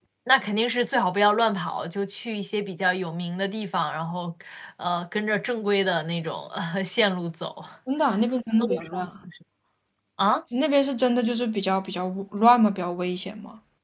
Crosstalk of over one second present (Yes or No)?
No